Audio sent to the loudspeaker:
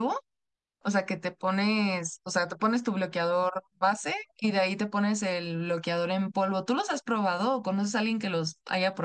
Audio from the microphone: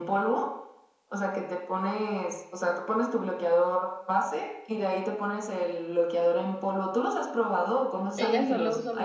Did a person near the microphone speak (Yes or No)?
Yes